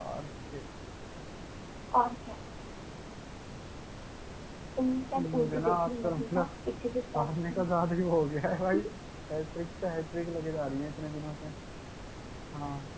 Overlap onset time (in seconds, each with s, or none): 5.2 s